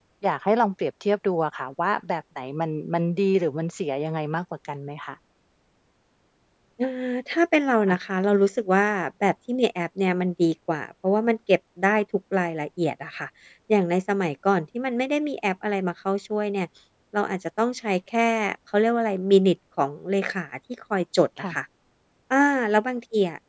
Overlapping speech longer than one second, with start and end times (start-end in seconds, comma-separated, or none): none